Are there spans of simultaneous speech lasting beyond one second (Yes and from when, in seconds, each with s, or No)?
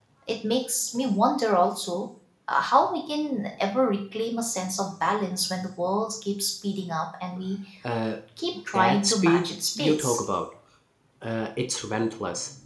Yes, from 8.7 s